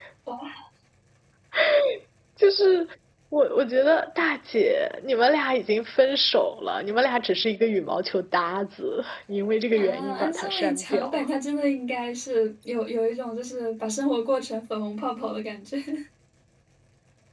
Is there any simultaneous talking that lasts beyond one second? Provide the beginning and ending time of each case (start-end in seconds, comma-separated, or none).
9.7-11.2